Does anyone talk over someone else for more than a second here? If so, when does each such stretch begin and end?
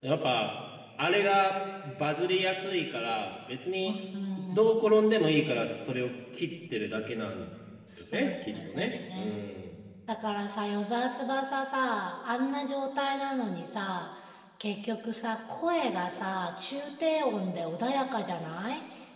8.0-9.4

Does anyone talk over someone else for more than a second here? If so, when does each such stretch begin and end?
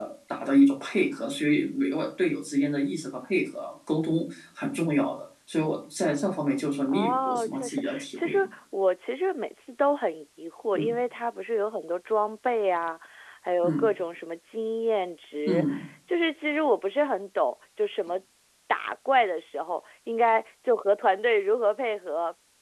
6.9-8.4

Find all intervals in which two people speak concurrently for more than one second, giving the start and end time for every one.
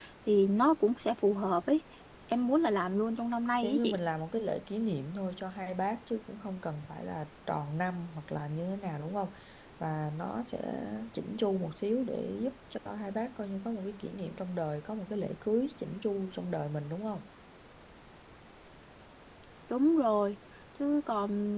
none

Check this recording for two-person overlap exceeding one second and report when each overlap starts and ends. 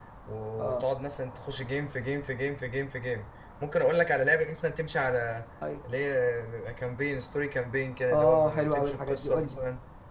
8.1-9.6

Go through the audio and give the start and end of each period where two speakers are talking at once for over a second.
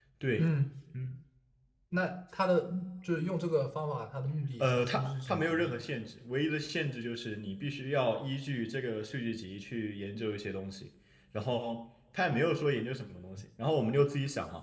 4.6-5.8

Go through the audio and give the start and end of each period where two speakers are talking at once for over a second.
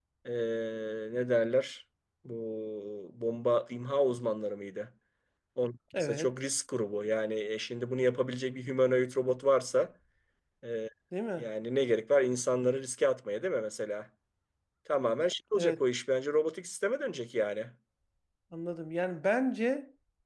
none

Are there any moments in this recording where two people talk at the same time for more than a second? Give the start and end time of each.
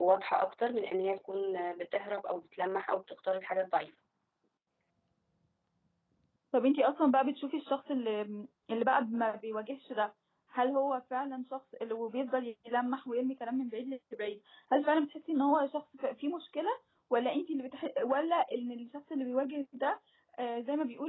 none

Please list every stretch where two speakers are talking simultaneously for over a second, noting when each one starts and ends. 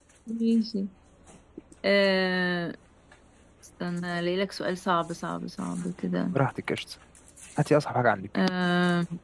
none

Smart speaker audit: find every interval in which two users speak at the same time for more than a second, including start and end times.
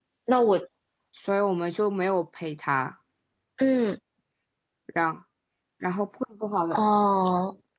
none

